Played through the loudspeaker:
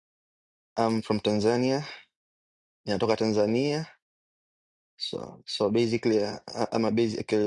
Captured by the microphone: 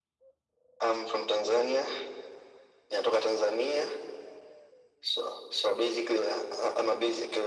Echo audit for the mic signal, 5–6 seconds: echo only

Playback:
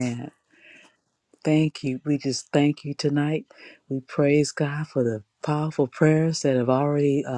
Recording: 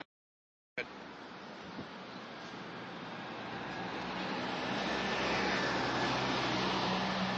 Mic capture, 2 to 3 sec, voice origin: neither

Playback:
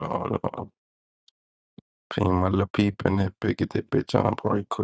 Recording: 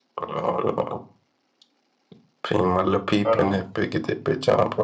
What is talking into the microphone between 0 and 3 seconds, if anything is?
echo only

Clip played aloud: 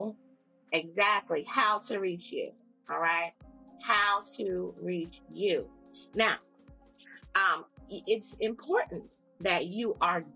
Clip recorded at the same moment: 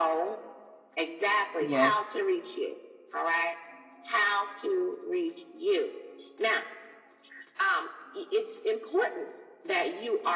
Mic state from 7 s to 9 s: echo only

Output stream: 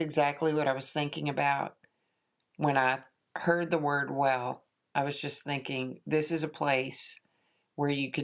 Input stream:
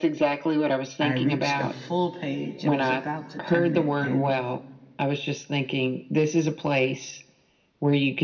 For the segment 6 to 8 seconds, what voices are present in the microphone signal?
echo only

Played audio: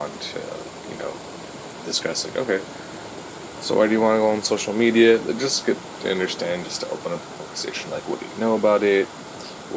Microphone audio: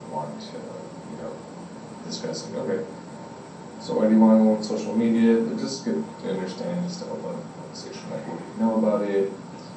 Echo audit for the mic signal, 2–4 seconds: echo only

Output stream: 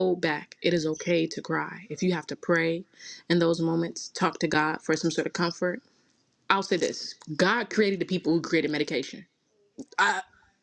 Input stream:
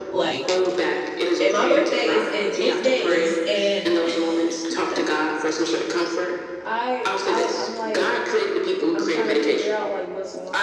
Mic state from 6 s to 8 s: both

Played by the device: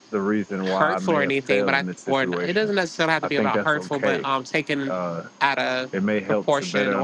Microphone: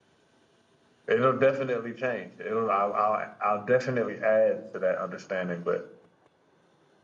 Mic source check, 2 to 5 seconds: user only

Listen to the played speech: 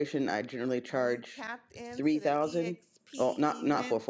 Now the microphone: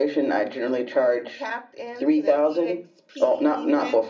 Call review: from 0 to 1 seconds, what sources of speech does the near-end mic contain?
echo only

